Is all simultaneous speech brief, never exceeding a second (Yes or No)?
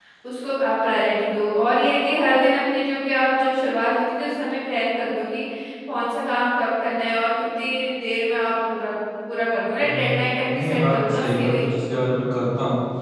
No